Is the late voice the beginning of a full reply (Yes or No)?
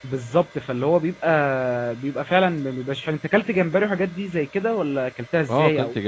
Yes